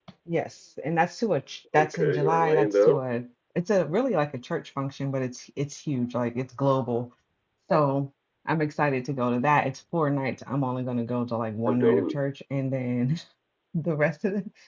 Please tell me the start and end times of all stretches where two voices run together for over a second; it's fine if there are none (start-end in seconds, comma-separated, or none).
1.7-3.0